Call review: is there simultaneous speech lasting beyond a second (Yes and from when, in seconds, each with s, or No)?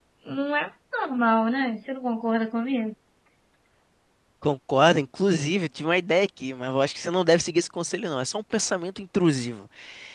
No